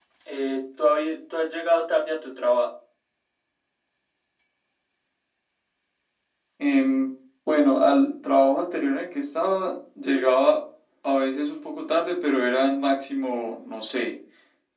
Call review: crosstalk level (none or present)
none